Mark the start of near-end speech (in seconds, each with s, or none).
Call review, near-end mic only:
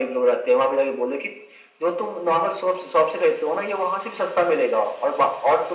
none